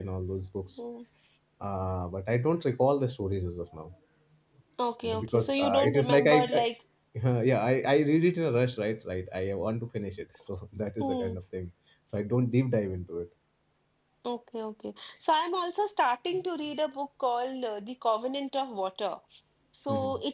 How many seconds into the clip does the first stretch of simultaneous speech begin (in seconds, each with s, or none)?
5.2 s